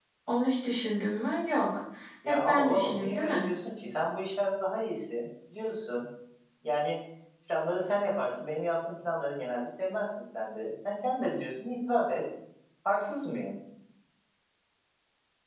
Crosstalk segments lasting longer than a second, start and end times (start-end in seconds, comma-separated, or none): 2.2-3.5